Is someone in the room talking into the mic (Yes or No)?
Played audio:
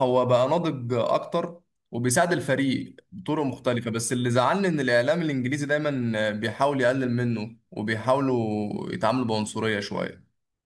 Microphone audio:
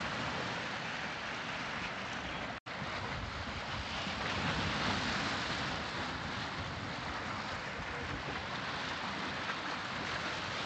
No